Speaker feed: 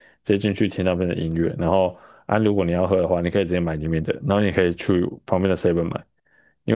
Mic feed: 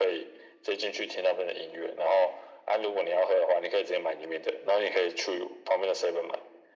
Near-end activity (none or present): none